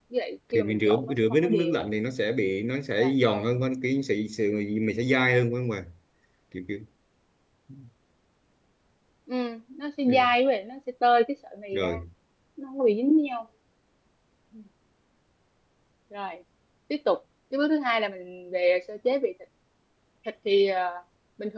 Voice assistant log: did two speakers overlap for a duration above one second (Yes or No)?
Yes